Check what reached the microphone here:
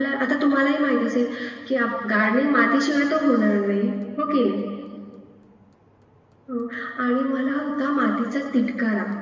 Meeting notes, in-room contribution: none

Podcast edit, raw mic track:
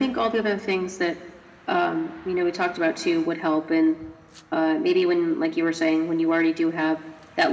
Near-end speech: none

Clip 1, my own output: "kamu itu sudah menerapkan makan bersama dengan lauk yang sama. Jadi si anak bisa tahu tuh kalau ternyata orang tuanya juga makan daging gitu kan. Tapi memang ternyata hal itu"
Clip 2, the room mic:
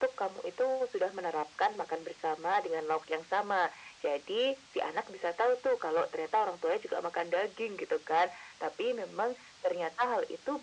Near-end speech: none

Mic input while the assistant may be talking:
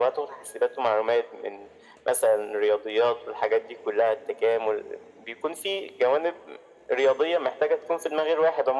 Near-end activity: none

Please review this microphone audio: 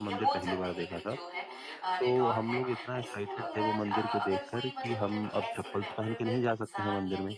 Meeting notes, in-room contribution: present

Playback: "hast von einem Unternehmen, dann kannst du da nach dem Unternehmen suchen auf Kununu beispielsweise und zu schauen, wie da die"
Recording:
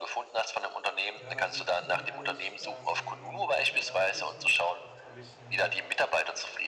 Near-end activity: present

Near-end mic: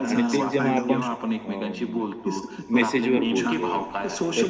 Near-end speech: present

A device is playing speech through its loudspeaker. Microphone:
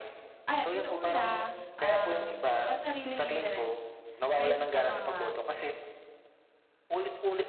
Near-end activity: present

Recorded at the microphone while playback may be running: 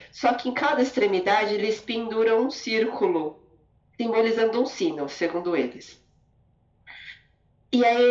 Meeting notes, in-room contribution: none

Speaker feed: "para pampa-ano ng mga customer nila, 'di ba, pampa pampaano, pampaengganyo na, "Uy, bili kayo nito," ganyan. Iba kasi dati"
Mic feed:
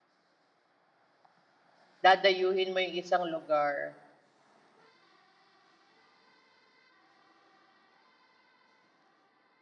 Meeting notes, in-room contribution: present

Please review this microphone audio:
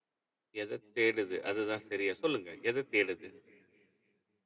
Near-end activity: present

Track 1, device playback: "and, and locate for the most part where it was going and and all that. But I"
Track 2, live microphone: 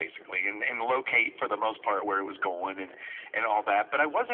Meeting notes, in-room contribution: none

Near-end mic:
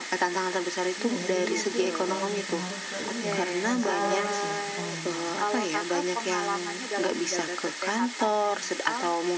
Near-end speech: present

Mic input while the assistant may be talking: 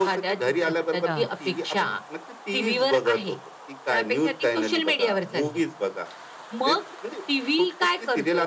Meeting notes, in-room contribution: present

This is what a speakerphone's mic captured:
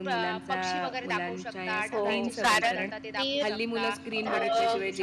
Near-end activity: present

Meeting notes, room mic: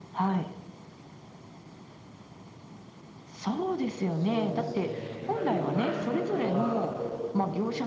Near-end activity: present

